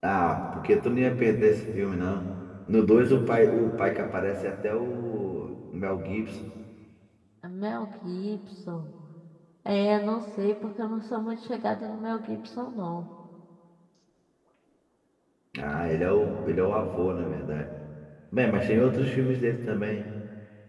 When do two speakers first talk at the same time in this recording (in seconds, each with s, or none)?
none